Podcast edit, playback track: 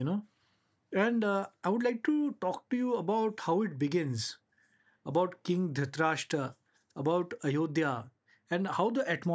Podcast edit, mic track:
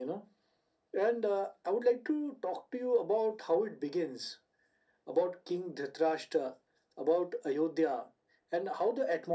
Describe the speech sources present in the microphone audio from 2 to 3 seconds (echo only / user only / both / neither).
echo only